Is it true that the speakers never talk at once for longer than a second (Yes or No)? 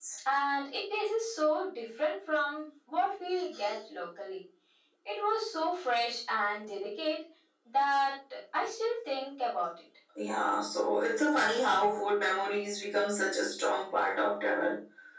Yes